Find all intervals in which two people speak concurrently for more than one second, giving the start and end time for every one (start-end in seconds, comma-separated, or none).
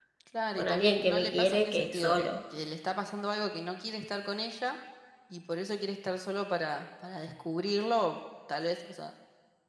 0.6-2.3